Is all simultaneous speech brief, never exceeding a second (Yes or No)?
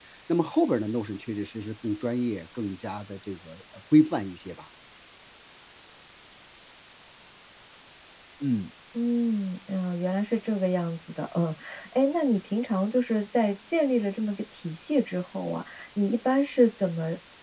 Yes